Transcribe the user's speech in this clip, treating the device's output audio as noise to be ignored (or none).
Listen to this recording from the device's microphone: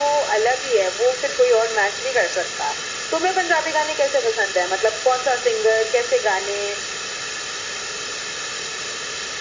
none